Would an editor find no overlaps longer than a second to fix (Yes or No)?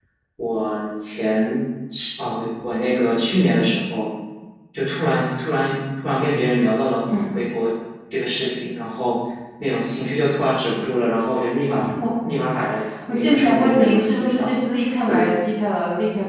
No